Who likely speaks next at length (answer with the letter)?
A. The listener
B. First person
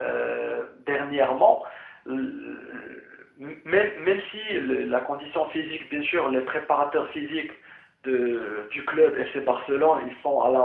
B